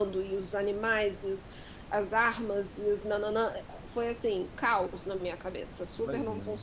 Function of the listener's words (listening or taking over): taking over